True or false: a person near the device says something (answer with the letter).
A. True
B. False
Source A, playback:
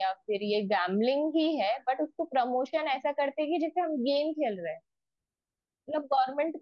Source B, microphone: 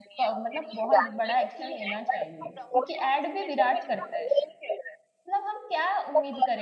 A